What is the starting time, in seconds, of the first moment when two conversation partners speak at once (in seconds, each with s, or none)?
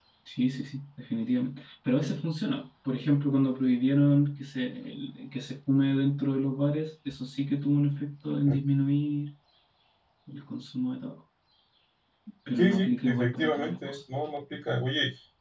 12.5 s